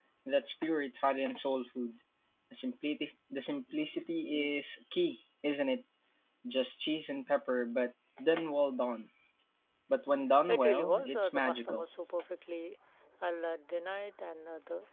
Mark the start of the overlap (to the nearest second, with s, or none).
10 s